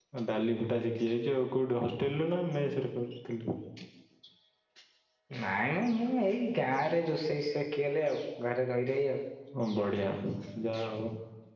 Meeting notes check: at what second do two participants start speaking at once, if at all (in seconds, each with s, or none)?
none